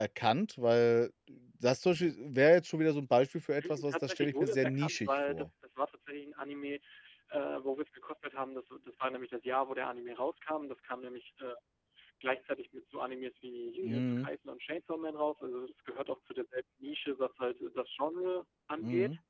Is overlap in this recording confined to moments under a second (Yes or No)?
No